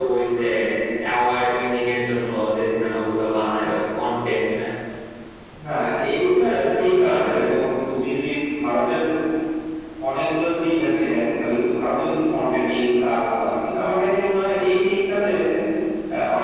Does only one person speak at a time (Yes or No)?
No